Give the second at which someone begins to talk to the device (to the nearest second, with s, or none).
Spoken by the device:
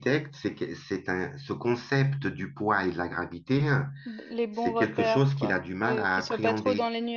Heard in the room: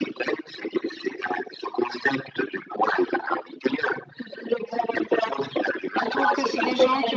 6 s